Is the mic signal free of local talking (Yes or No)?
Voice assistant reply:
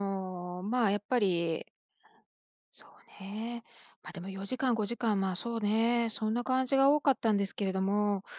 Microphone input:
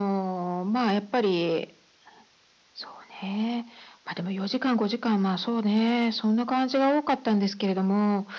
Yes